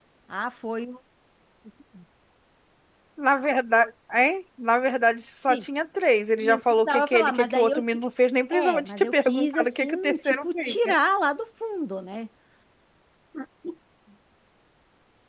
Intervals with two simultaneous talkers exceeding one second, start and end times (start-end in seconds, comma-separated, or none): 6.4-7.8, 8.5-10.9